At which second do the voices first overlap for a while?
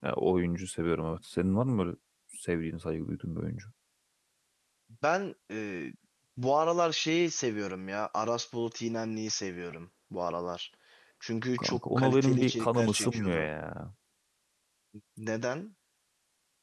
11.6 s

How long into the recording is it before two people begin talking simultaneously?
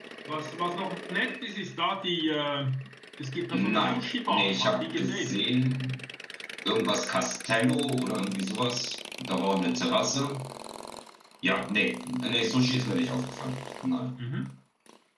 3.5 s

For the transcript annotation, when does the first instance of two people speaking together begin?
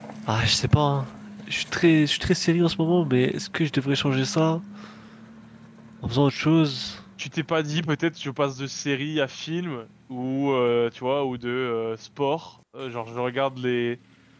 none

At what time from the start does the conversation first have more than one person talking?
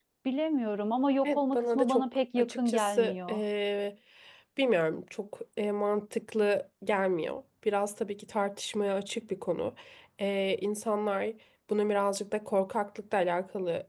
1.2 s

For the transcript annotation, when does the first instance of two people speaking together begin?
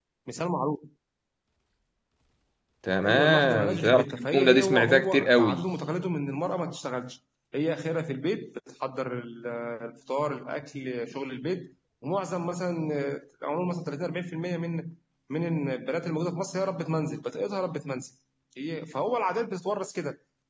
3.0 s

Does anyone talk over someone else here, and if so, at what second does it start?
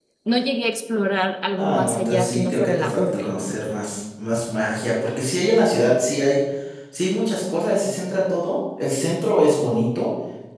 1.6 s

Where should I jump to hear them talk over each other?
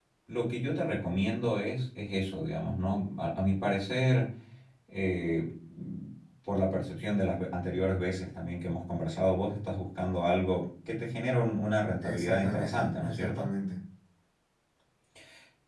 12.0 s

